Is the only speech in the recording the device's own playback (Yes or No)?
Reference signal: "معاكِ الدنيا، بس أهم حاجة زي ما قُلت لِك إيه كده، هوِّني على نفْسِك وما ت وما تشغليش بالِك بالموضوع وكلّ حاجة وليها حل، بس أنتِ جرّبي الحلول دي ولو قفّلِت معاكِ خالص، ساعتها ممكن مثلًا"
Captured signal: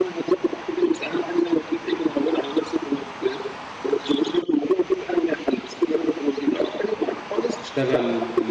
No